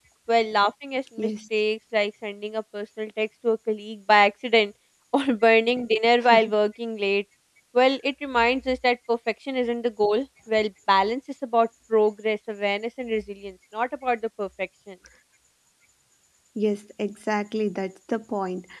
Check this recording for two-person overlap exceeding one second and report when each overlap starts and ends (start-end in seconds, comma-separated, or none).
none